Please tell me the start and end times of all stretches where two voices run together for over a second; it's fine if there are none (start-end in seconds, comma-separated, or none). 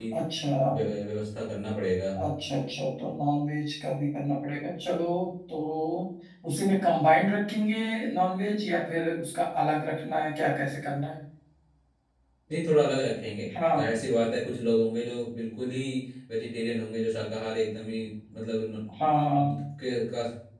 none